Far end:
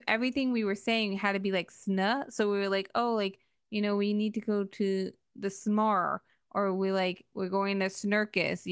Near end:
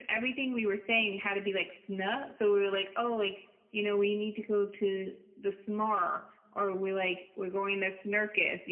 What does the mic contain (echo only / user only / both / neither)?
echo only